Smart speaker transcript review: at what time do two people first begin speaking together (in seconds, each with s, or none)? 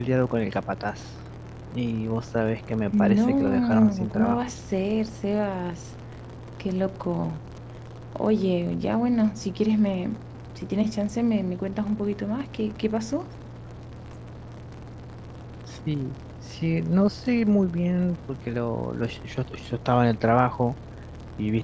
2.9 s